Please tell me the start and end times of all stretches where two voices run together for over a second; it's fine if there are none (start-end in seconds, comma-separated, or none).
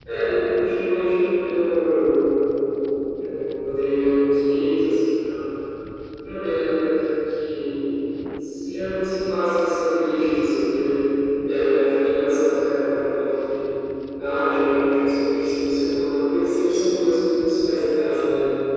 none